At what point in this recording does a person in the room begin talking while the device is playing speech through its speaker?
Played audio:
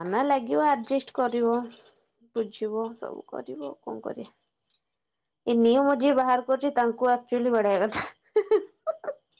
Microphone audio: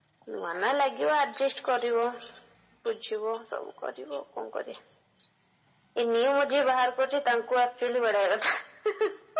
none

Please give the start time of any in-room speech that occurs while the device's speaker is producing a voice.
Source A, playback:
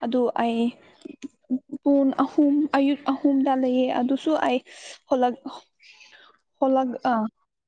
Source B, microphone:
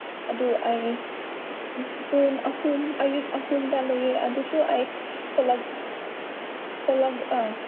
none

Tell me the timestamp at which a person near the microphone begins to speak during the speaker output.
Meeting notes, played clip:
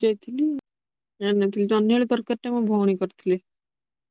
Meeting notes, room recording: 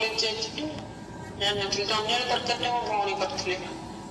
none

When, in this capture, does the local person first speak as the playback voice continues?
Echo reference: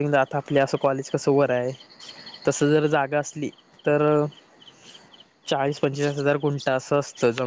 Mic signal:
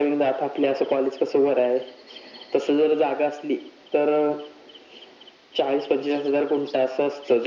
none

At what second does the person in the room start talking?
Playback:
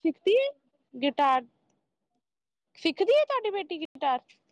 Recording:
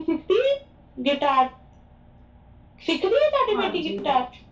3.5 s

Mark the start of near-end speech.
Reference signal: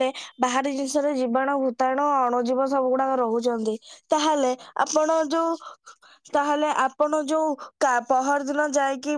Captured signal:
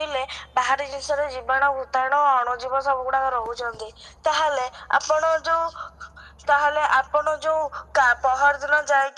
none

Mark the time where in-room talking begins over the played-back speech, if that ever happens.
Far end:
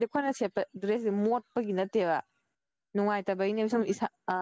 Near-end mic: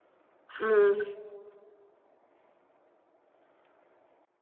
0.6 s

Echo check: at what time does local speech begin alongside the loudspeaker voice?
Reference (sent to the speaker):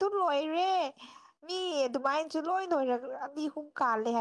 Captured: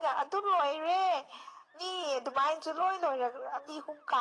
none

